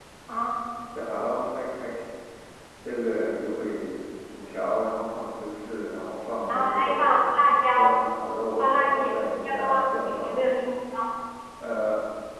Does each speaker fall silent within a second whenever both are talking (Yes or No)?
No